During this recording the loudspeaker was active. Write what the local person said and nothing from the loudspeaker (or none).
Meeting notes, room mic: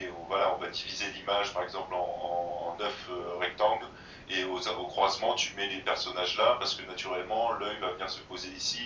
none